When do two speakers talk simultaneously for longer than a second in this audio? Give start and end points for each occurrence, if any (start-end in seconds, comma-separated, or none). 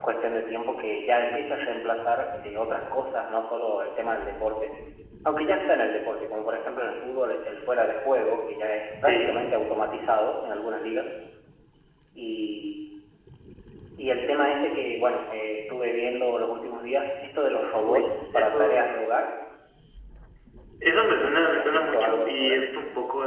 17.9-19.1, 21.2-22.6